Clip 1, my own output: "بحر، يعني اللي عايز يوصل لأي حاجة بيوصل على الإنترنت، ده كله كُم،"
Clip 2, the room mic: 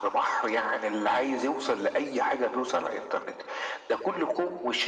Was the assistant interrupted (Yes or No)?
No